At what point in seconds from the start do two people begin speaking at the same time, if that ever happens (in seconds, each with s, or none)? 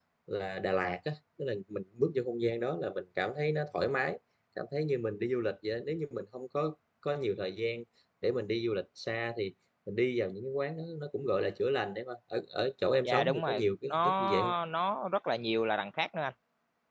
13.0 s